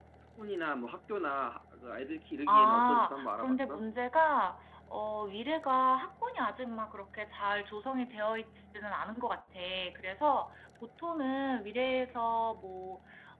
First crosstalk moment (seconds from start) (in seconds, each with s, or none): 2.5 s